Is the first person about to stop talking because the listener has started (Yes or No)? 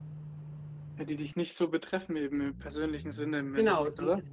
Yes